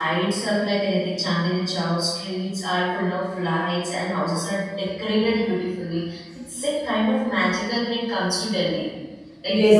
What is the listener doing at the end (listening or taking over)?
taking over